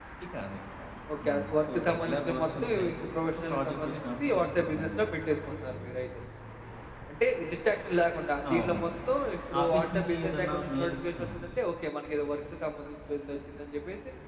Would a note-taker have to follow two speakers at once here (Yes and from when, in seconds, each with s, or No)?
Yes, from 1.2 s